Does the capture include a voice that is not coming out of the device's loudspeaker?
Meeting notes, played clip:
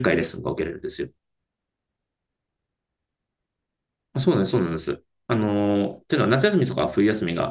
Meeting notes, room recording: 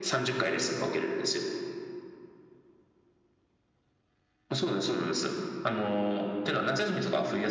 No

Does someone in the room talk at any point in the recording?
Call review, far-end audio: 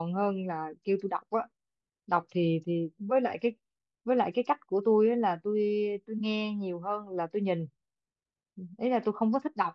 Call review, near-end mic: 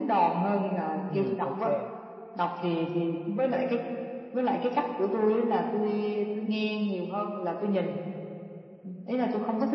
Yes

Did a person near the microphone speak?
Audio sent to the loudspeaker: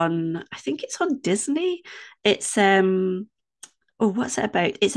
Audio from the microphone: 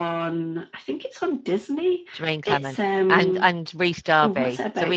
Yes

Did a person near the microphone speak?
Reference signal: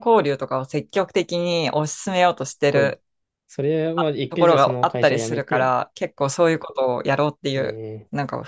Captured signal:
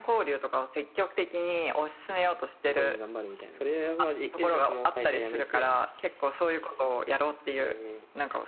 Yes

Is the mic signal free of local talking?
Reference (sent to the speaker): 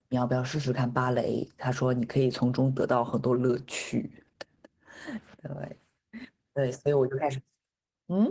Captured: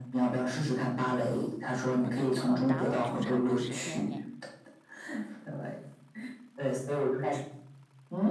No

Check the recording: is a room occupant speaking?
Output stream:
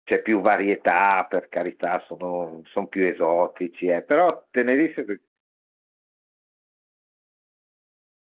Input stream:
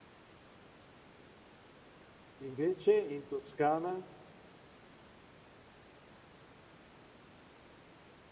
Yes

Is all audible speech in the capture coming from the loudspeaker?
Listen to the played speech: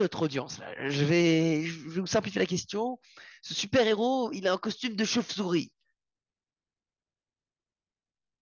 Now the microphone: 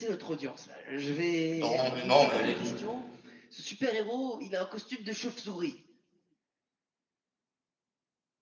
No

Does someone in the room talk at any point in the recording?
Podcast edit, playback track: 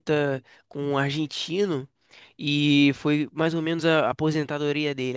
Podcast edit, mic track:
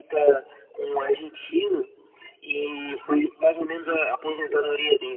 No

